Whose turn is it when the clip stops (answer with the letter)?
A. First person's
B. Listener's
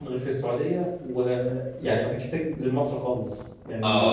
B